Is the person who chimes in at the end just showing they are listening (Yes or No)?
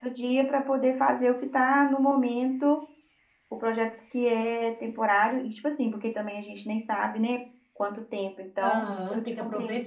No